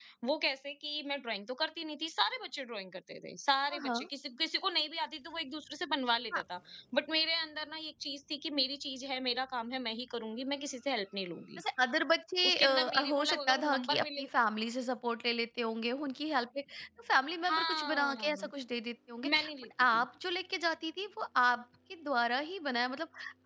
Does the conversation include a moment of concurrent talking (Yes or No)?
Yes